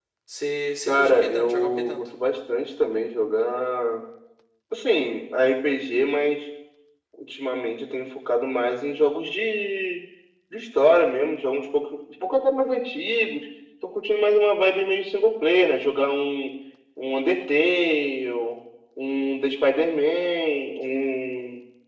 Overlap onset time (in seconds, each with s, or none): 0.9 s